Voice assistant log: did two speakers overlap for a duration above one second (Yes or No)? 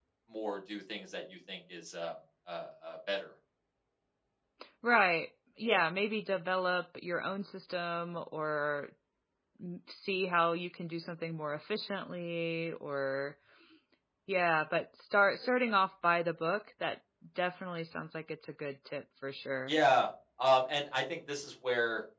No